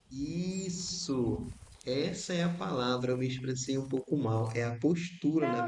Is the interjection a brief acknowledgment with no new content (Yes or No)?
No